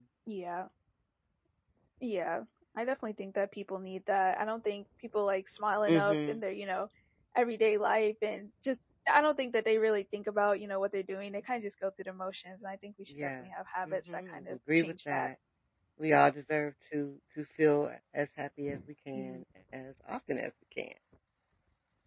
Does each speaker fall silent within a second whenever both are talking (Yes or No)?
No